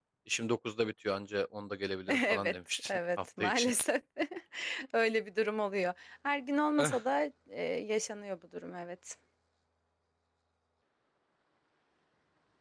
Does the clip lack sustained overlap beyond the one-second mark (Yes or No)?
No